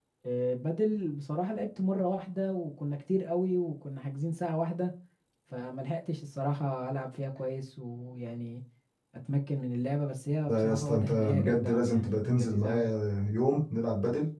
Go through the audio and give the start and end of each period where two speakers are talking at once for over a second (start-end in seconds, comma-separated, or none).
10.5-12.9